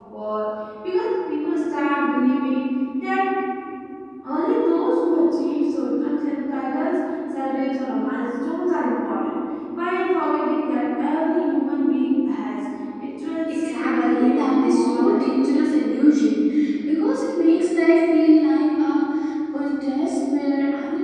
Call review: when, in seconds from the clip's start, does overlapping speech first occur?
13 s

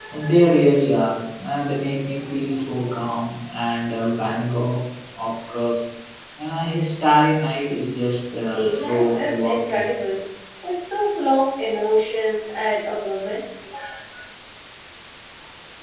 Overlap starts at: 9 s

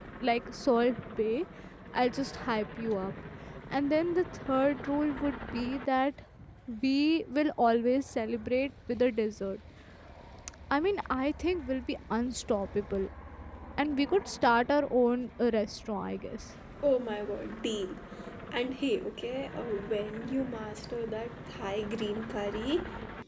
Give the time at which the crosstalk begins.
none

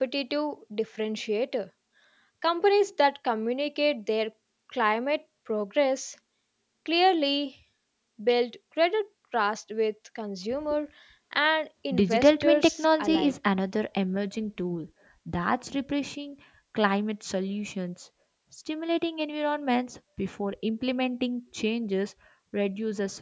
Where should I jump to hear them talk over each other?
12 s

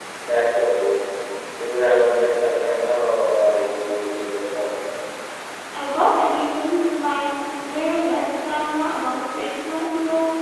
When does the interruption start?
none

